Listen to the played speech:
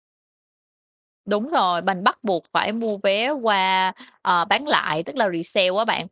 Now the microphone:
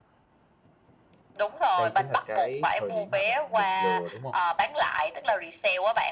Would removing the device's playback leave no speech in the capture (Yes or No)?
No